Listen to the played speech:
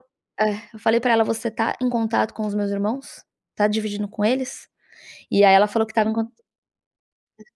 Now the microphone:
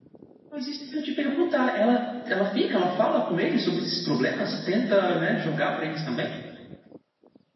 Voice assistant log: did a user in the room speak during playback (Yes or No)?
Yes